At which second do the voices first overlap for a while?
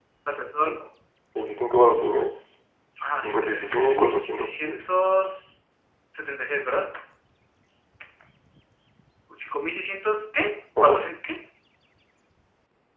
3.2 s

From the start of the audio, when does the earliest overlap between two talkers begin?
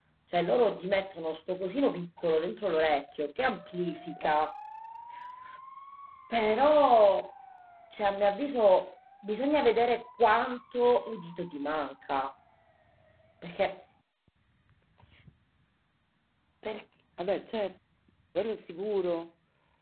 none

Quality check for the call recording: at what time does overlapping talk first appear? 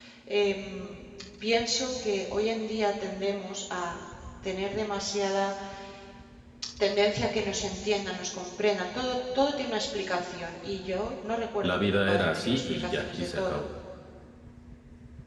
11.6 s

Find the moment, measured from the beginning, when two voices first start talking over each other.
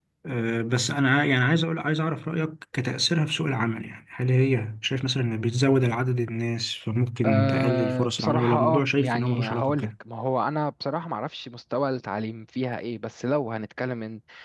7.2 s

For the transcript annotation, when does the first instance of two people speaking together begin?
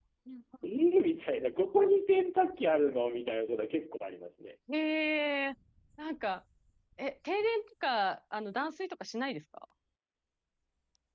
none

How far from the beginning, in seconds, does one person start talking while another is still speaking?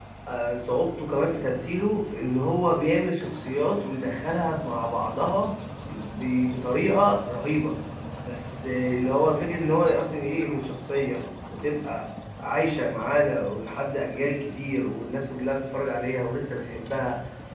none

